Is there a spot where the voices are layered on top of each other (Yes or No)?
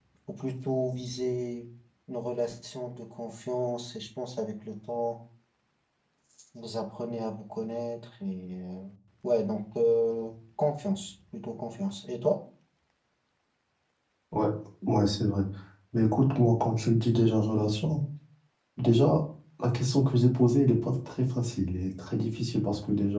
No